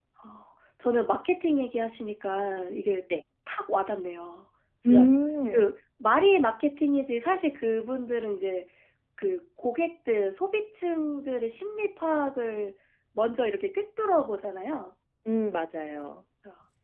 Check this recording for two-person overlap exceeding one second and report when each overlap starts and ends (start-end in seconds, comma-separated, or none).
none